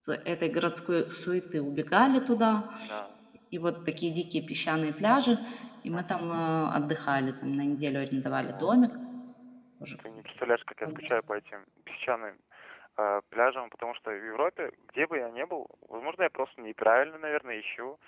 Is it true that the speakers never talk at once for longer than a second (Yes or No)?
Yes